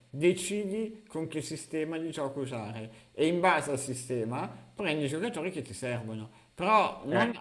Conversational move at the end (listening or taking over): listening